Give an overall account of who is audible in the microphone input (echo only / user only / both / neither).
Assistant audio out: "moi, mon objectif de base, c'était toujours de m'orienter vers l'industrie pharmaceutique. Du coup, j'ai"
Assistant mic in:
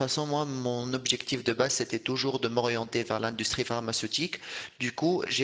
echo only